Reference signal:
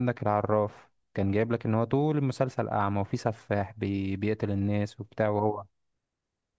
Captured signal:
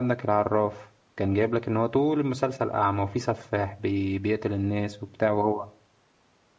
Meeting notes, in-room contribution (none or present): none